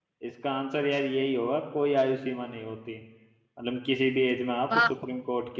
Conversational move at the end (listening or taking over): listening